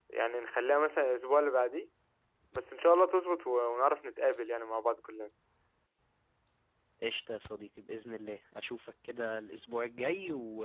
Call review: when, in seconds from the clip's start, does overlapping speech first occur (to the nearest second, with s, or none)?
none